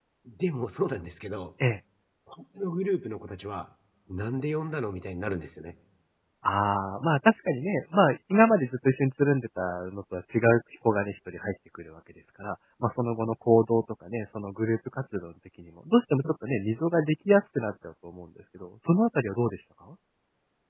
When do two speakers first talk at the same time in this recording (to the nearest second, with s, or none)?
none